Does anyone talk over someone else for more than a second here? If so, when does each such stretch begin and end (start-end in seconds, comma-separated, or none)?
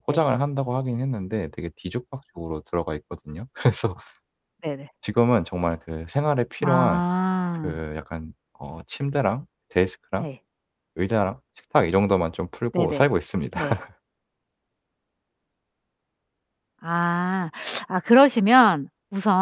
none